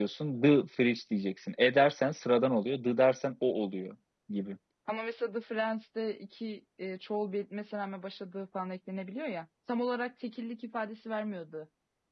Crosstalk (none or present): none